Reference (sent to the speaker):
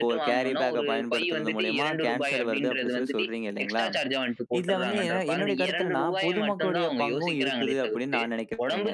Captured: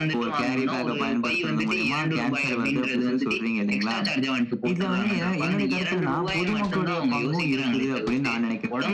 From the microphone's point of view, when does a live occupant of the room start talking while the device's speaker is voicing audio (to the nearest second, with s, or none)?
none